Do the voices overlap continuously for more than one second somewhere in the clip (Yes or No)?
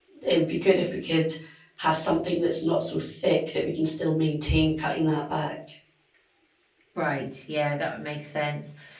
No